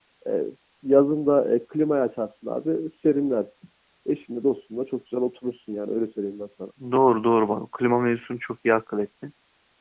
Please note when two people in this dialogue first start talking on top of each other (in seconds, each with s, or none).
none